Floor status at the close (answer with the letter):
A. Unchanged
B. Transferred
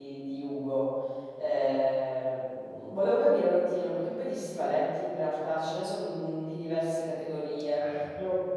A